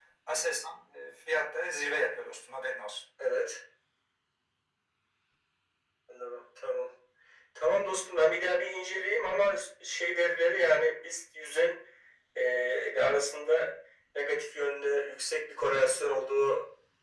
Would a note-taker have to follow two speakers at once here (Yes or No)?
No